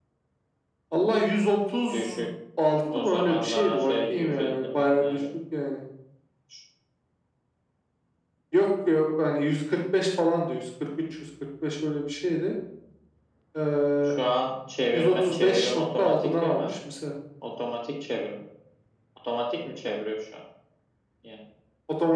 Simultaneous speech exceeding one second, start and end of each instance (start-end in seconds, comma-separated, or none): 3.0-5.2, 14.9-16.7